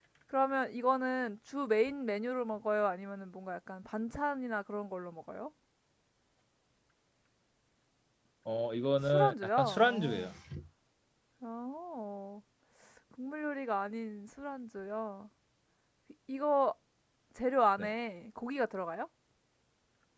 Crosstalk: present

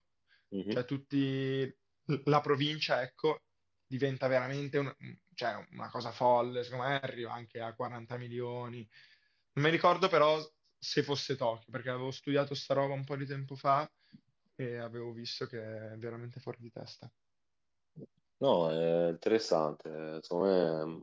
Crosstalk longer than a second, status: none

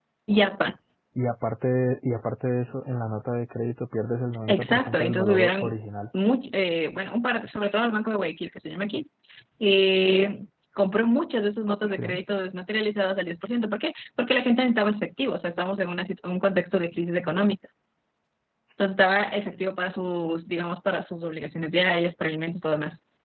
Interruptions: present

